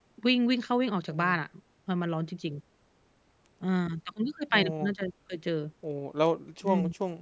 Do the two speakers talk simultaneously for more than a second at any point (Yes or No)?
No